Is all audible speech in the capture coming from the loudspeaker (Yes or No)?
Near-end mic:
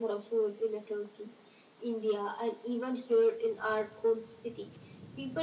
Yes